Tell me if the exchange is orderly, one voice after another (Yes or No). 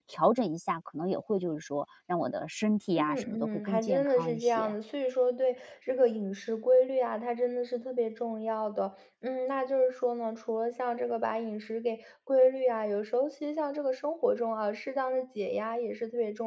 No